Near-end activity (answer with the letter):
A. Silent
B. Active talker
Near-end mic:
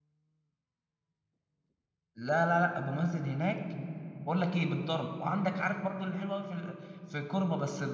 B